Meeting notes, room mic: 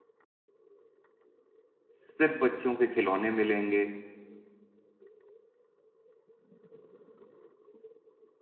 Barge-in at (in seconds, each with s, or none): 2.0 s